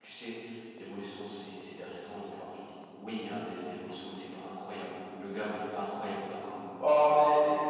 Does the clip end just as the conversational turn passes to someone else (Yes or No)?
Yes